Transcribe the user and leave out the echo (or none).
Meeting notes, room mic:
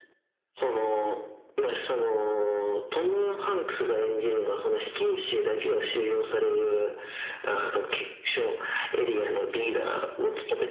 none